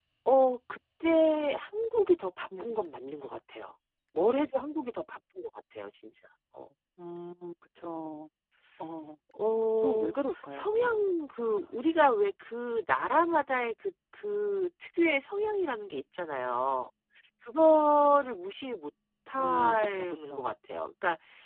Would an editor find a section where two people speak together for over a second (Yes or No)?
Yes